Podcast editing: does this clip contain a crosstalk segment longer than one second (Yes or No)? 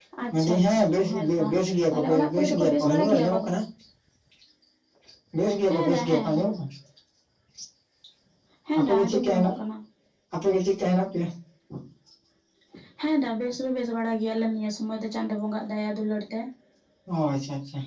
Yes